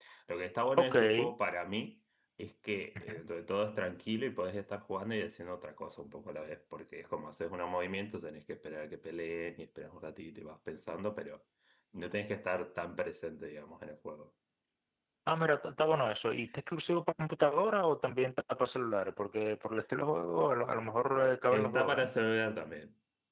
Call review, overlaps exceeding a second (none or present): none